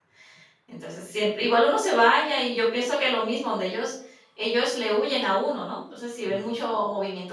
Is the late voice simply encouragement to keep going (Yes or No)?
Yes